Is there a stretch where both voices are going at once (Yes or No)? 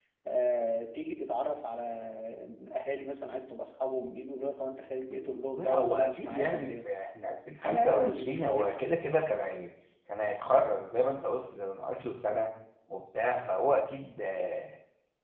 Yes